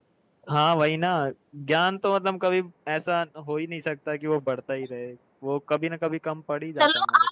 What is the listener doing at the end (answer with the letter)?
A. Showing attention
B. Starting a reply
B